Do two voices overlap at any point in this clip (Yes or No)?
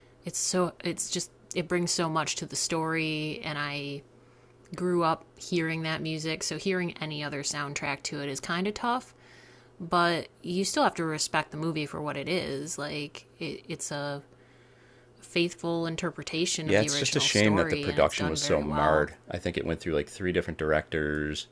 Yes